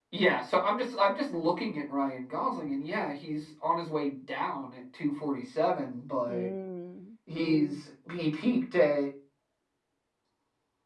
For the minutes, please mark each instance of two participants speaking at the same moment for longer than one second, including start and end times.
none

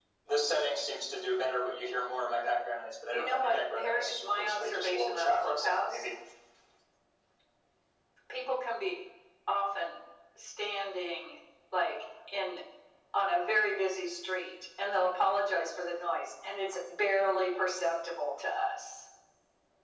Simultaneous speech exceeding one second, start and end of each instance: 3.1-6.0

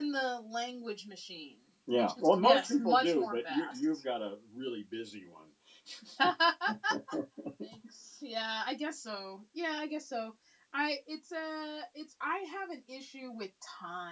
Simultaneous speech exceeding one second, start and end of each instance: 1.9-3.8

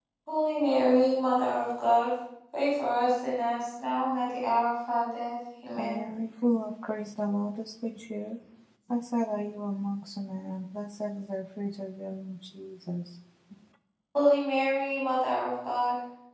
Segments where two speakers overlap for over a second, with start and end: none

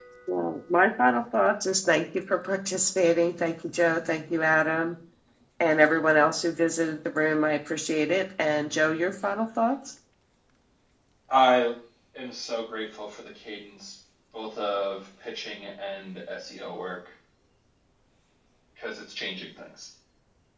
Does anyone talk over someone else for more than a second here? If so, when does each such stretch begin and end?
none

